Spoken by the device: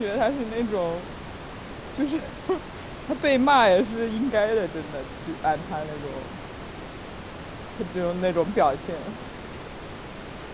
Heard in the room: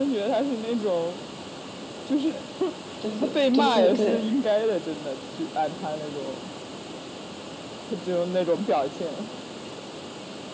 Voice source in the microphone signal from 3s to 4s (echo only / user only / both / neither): both